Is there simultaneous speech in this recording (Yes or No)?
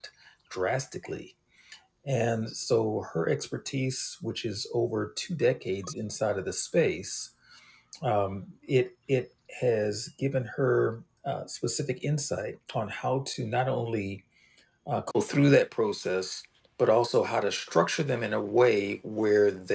No